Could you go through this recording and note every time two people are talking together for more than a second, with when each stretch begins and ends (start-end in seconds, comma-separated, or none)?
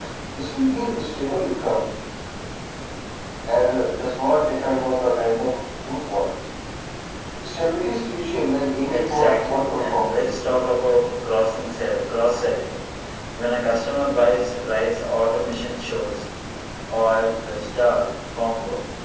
8.9-10.3